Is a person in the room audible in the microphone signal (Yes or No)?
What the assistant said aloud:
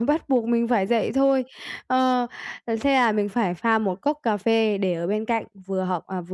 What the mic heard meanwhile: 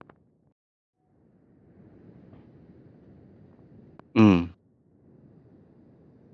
Yes